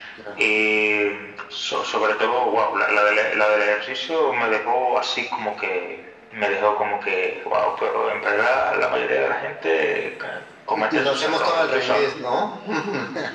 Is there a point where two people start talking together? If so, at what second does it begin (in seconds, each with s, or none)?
10.7 s